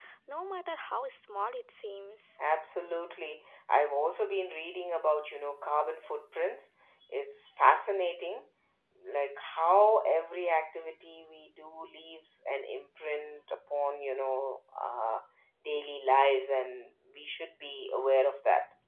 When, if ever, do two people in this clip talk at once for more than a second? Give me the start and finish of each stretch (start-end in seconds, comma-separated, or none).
none